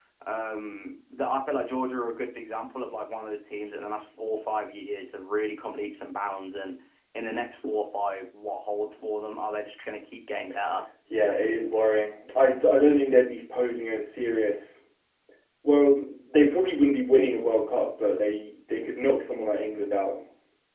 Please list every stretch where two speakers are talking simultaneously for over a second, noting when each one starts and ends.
none

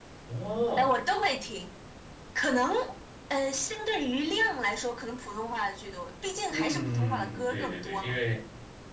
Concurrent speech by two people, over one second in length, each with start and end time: 6.5-8.2

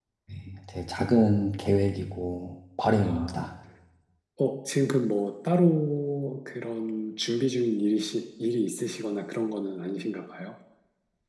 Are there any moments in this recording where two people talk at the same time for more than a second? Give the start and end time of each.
none

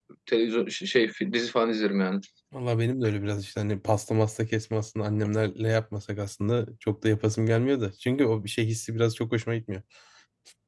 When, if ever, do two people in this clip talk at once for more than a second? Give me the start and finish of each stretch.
none

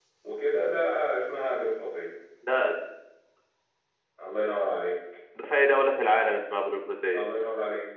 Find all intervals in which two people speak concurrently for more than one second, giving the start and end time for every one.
none

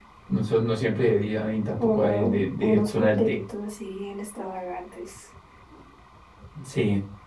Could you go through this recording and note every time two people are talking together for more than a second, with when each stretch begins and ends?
1.8-3.4

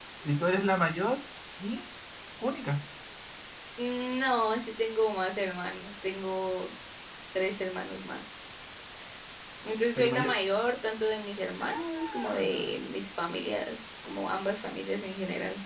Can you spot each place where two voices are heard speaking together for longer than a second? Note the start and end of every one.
11.6-12.8

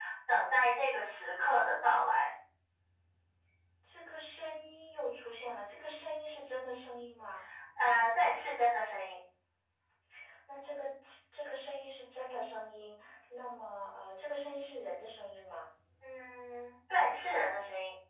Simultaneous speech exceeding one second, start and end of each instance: none

